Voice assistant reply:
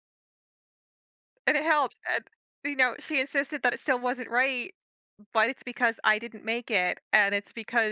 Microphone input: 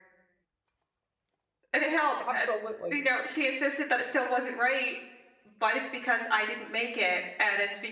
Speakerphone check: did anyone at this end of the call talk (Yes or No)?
Yes